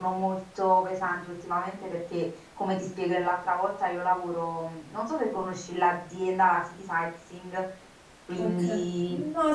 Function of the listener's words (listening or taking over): taking over